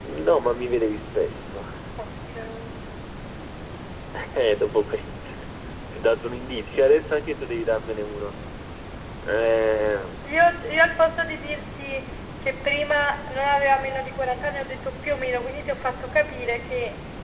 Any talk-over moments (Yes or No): No